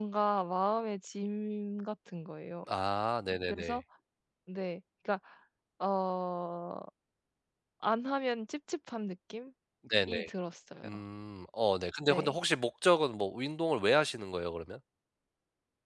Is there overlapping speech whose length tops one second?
No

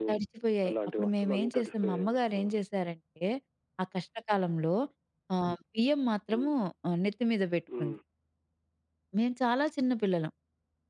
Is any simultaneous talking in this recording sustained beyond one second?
Yes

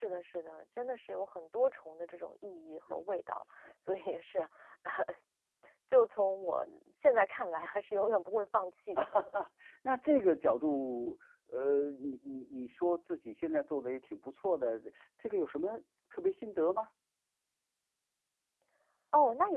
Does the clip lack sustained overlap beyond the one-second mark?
Yes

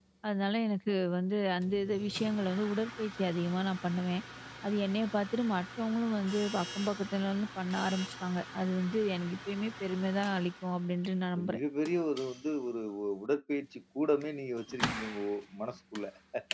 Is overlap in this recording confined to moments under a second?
Yes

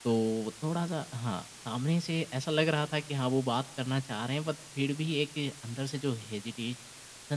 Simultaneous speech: No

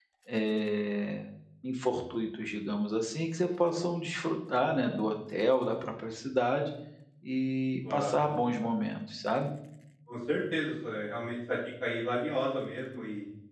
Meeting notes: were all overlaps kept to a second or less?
Yes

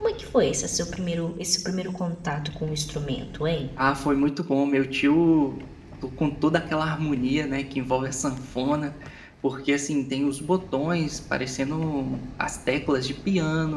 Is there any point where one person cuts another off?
No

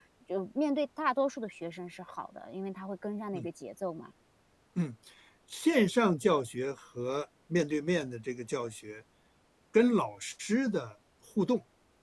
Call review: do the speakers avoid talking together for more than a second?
Yes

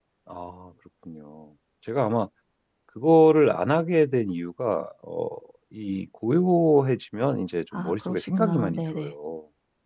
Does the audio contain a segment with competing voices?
Yes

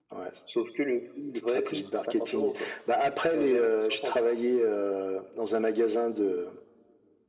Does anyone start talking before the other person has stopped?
Yes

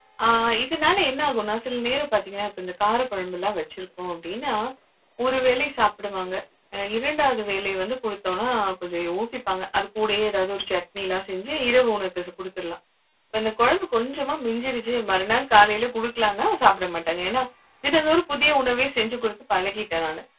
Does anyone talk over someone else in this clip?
No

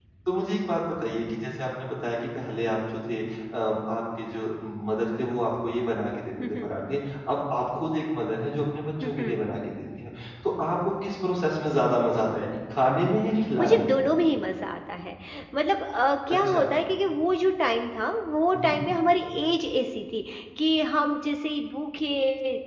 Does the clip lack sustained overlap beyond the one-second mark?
Yes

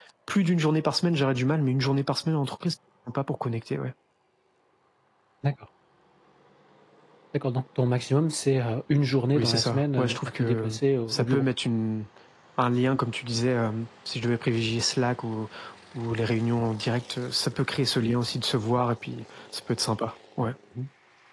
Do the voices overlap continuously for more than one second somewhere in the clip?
Yes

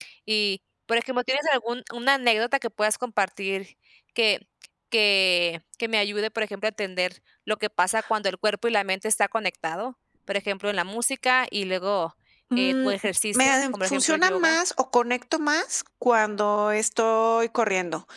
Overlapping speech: Yes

